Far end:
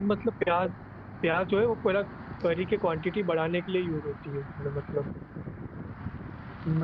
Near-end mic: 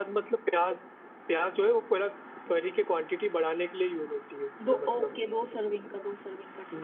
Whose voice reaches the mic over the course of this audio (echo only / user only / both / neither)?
both